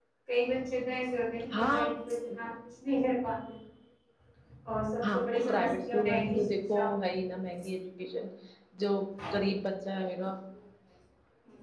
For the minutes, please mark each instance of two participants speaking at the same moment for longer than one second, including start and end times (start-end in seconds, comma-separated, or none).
5.1-6.9